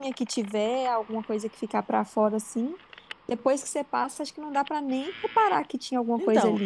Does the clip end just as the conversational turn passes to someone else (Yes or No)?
Yes